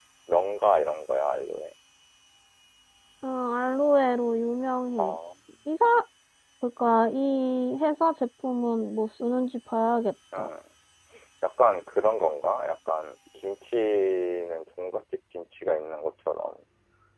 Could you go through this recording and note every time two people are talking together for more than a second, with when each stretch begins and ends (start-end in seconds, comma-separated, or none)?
none